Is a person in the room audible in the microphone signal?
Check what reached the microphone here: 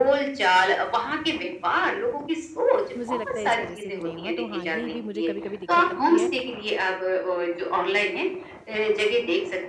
Yes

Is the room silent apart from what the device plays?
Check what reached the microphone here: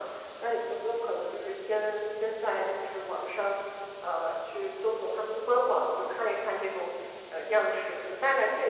Yes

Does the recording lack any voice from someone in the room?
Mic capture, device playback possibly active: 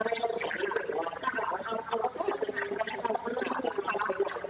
Yes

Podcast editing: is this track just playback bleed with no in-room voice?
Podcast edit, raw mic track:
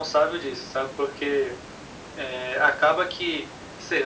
Yes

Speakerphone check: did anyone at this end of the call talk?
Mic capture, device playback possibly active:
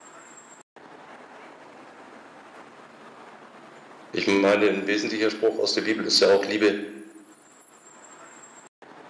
Yes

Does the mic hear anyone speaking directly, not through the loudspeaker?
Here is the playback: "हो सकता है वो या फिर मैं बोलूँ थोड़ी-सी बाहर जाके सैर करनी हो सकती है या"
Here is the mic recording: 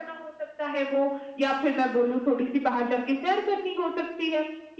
No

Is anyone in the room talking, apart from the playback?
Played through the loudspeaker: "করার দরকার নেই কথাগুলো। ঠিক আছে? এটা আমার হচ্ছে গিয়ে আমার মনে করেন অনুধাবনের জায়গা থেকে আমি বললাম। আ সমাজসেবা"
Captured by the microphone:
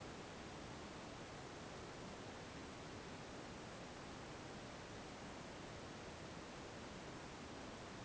No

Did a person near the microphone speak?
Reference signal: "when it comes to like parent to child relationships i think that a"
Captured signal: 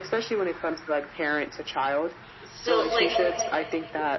Yes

